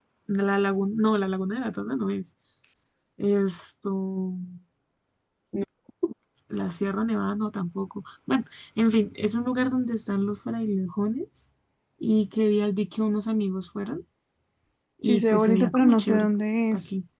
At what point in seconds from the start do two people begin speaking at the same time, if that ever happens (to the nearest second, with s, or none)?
15 s